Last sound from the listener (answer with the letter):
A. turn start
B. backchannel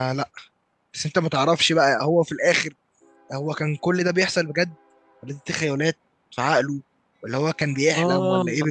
B